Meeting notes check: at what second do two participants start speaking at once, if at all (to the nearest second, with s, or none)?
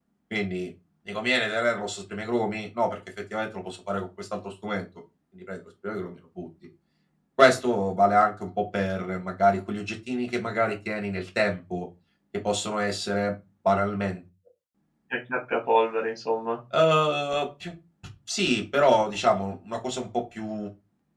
none